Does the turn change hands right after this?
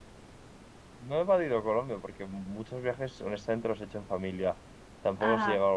No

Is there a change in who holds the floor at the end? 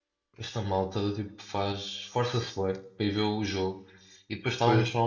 No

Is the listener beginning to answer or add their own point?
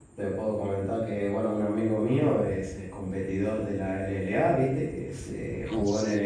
No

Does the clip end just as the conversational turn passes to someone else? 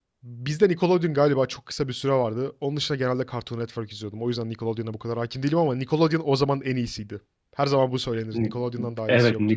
Yes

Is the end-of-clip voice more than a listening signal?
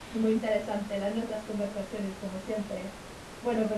No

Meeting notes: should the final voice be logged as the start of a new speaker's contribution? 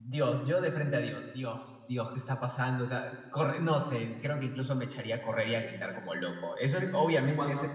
Yes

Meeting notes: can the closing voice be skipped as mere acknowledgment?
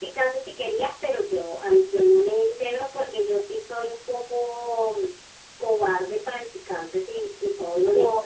No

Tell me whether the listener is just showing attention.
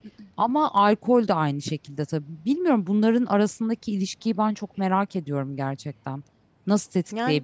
Yes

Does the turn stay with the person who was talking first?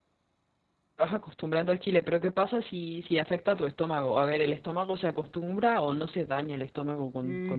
No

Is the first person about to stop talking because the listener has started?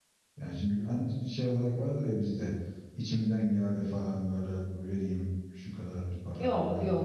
Yes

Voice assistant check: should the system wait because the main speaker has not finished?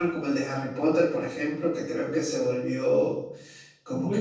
No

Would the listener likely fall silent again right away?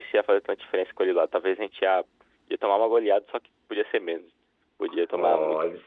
No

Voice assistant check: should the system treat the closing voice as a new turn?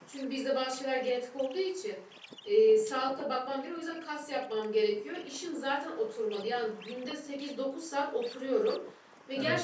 No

